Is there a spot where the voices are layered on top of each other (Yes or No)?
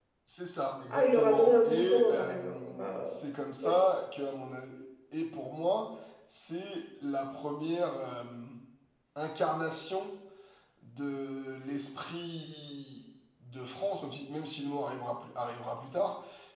Yes